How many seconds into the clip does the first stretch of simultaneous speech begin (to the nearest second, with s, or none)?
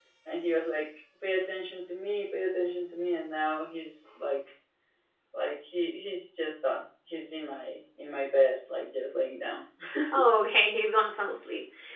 none